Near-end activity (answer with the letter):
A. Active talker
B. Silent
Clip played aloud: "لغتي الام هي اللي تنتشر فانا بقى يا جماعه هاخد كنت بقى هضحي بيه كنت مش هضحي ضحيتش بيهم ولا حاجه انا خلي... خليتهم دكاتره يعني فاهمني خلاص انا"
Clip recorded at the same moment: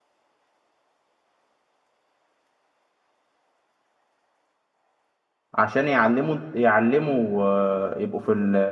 A